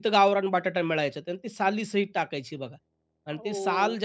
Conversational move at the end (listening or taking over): listening